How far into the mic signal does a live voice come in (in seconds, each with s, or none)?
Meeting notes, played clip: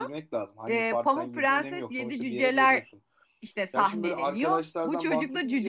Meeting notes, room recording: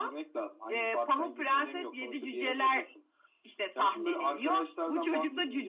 none